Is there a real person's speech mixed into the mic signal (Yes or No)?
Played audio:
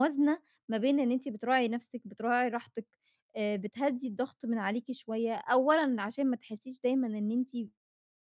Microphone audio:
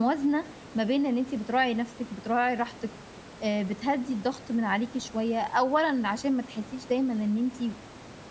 No